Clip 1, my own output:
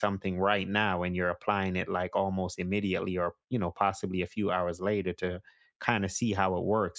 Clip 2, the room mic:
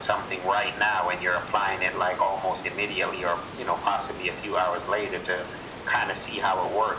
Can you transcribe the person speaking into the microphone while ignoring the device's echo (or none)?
none